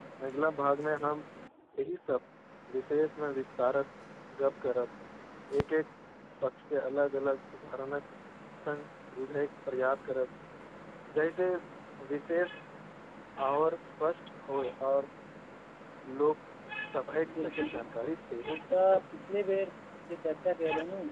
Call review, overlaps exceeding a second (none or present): present